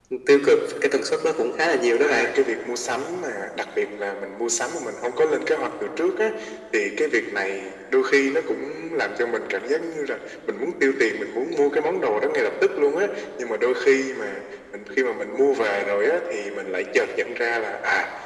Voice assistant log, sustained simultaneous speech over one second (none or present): none